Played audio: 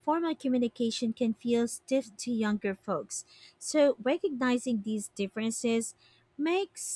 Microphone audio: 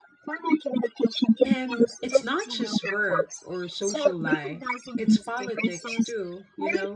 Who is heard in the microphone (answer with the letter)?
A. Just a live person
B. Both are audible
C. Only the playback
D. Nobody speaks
B